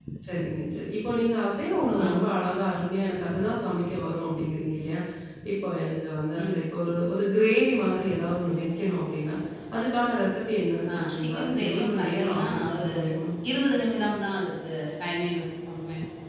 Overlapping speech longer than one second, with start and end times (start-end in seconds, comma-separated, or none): 10.9-12.9